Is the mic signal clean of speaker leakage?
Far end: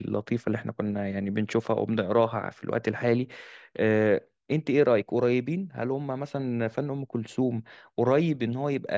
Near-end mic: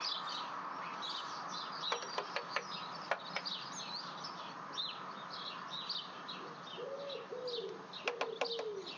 Yes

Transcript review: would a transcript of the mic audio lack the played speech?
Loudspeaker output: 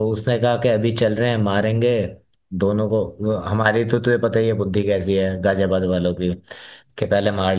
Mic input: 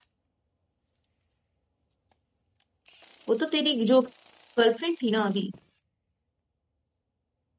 Yes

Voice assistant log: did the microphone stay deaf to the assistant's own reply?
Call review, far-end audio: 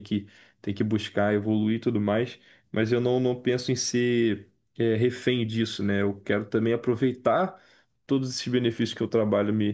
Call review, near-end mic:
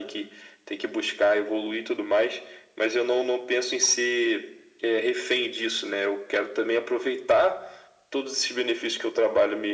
No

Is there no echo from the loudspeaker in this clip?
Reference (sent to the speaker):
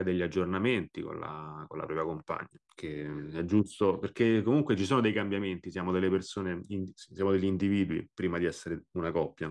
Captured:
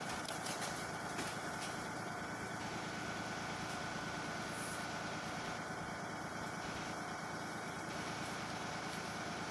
Yes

